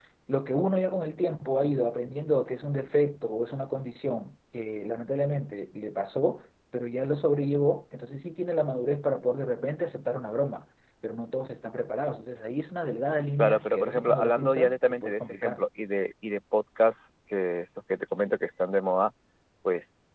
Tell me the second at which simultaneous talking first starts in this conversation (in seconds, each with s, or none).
13.4 s